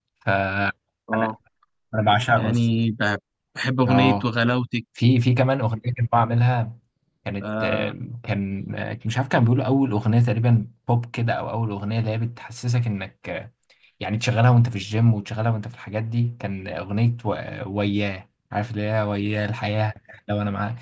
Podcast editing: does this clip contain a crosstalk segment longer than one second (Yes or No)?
No